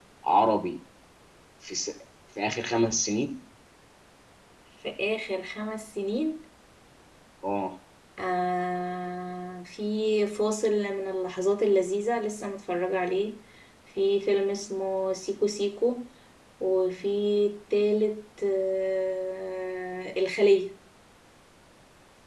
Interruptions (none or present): none